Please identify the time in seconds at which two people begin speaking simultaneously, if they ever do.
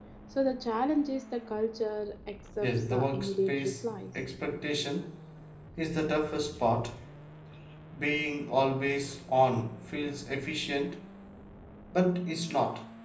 2.6 s

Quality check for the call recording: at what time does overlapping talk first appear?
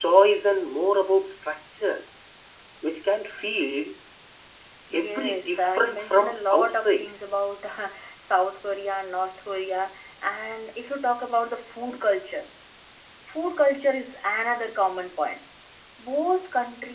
4.9 s

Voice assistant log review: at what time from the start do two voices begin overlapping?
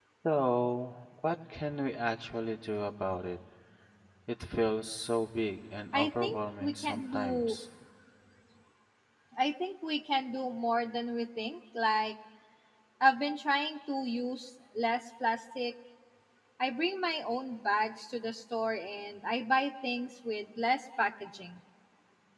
5.9 s

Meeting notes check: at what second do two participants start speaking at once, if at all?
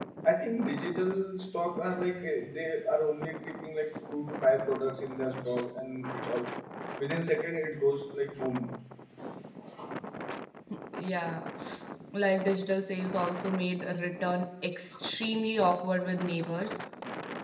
none

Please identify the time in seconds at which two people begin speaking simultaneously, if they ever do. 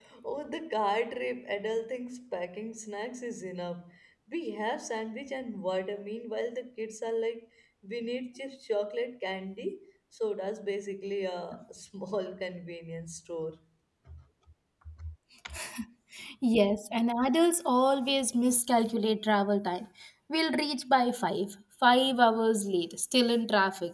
none

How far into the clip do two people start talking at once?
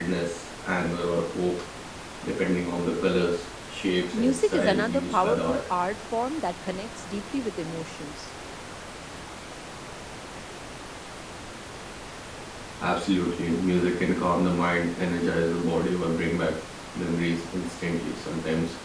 4.1 s

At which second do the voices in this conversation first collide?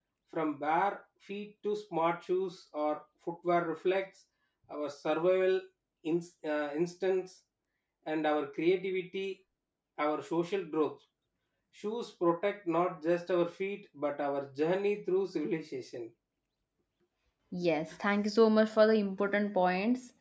none

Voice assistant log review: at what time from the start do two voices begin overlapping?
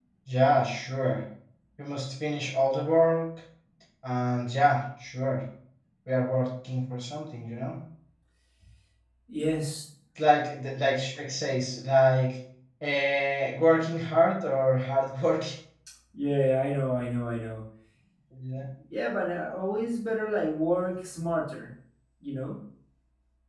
none

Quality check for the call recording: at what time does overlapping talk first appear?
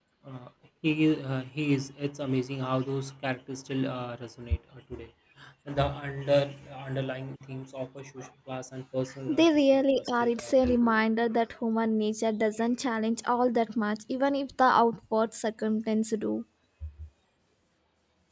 9.3 s

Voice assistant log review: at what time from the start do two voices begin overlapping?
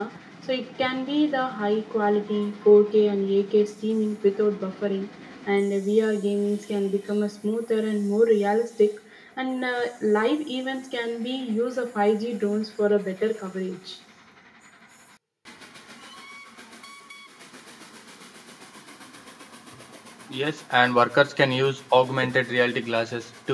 none

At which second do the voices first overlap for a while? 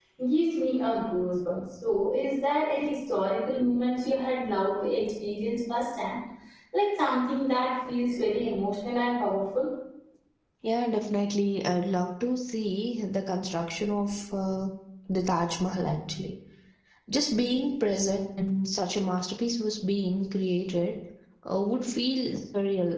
none

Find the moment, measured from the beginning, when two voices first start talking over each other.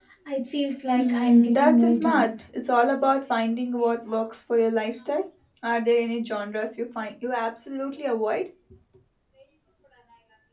1.0 s

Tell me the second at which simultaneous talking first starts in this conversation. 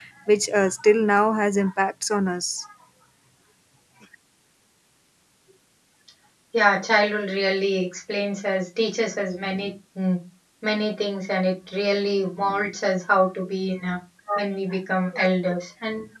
none

